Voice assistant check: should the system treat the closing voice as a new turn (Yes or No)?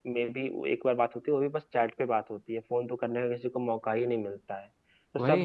No